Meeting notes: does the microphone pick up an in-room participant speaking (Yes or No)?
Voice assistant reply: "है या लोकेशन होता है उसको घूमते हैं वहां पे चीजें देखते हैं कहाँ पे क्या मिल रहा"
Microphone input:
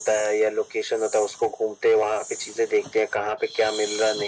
No